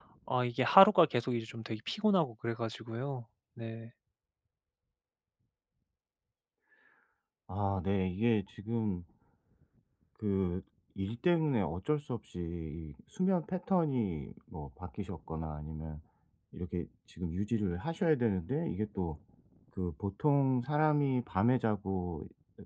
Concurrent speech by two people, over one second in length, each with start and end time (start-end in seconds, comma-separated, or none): none